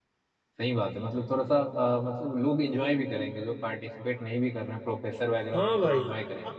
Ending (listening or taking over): taking over